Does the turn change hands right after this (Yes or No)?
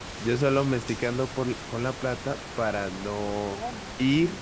No